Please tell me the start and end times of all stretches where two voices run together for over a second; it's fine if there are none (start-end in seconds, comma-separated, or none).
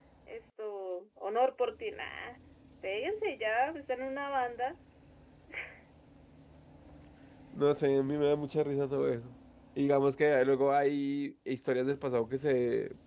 none